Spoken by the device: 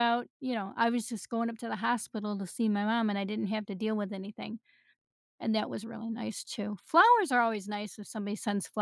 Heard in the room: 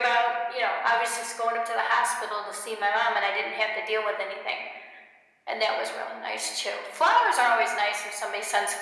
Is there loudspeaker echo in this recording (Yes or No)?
Yes